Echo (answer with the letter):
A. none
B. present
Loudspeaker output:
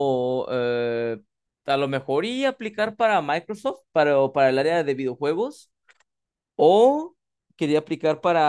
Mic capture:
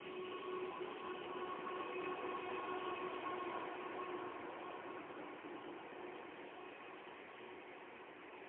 A